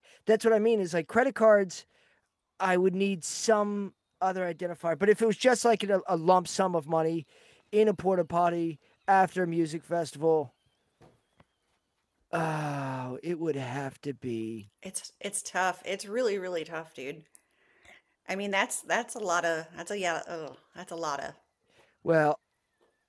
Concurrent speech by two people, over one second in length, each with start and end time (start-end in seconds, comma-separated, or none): none